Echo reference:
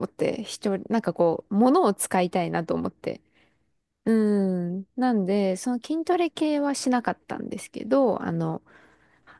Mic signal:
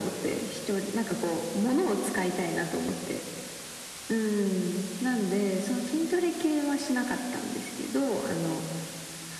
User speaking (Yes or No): No